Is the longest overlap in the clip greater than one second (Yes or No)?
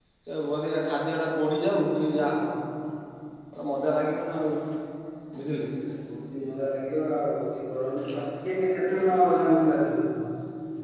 No